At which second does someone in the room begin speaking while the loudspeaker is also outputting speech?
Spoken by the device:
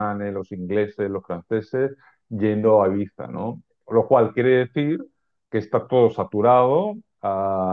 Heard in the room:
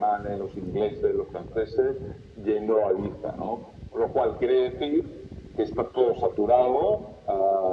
none

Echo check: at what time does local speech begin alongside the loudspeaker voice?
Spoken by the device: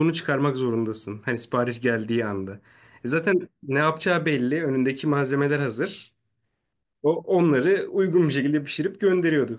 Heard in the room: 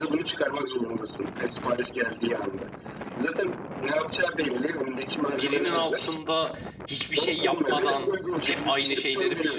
5 s

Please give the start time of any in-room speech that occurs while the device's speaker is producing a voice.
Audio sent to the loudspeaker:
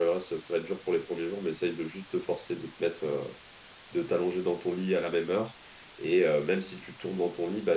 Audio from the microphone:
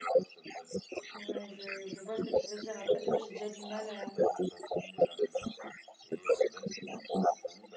1 s

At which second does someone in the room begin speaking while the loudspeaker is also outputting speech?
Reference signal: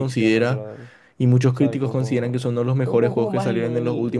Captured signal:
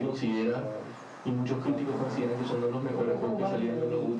none

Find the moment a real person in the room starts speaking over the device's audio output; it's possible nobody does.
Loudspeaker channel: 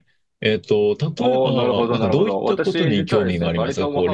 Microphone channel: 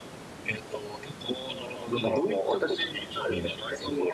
none

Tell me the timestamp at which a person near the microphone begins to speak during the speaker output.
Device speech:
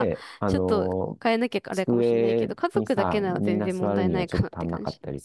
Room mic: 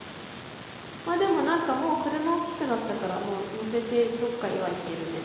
1 s

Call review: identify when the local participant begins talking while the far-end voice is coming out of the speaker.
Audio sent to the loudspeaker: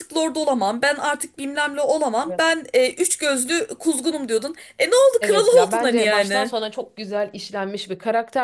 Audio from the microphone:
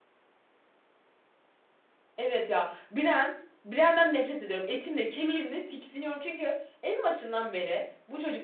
2 s

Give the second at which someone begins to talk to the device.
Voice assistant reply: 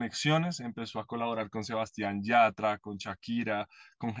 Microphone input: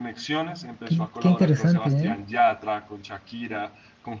1 s

